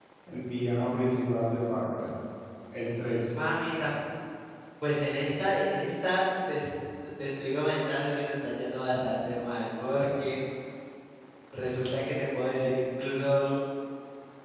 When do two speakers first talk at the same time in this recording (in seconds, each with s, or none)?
none